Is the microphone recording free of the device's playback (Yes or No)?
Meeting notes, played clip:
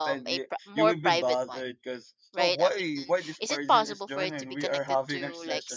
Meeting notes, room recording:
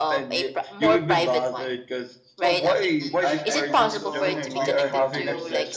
No